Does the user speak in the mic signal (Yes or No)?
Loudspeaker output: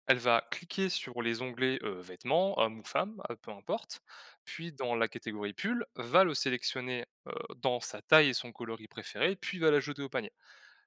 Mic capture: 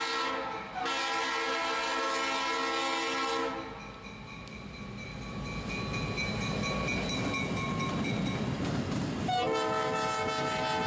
No